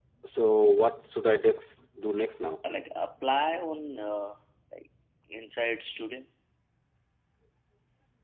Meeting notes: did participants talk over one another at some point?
No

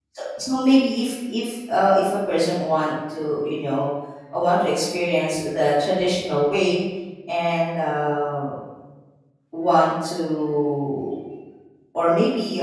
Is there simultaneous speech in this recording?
No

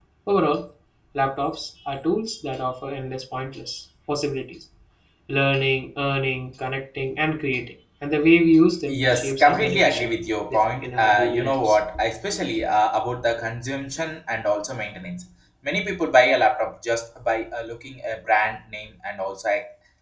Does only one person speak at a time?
No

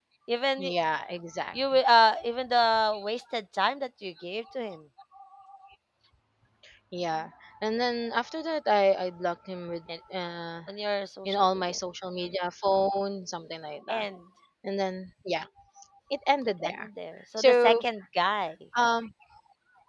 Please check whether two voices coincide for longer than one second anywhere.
No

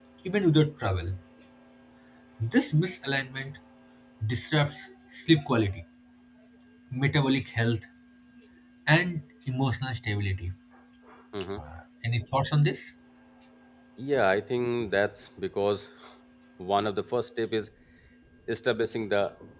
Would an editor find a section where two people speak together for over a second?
No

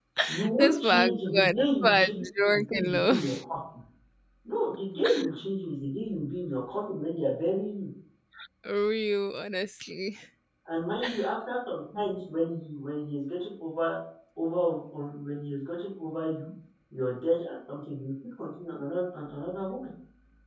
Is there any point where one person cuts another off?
Yes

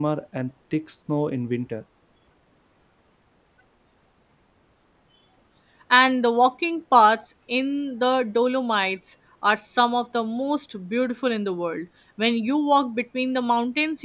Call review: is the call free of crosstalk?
Yes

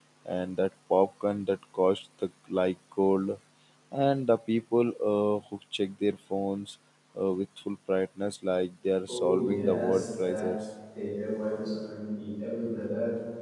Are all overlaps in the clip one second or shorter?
No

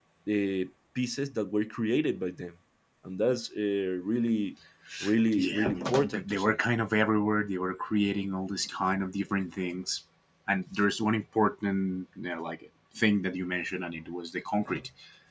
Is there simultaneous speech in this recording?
Yes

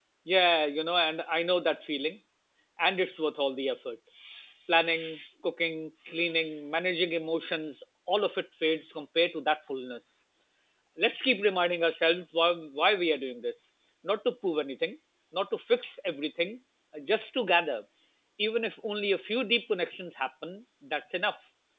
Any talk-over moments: No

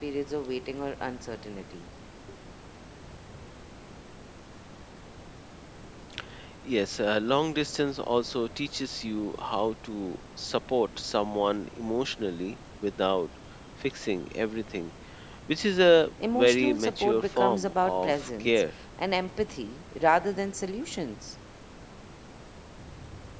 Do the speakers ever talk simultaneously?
Yes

